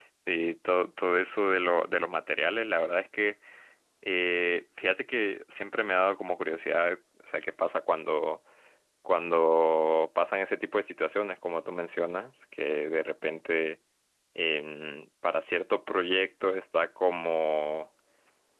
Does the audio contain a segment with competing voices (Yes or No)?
No